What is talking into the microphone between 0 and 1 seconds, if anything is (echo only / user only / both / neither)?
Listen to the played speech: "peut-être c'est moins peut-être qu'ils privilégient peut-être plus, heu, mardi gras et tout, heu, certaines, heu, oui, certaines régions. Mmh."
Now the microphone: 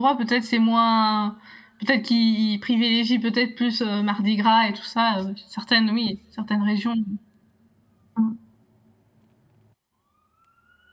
echo only